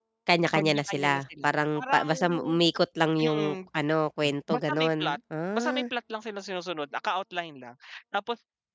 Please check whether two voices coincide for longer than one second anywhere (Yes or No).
Yes